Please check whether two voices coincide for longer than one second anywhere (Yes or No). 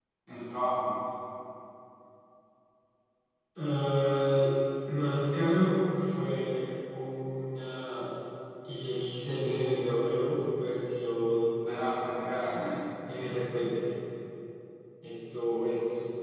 No